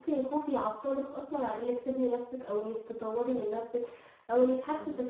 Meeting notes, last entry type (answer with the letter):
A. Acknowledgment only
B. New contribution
A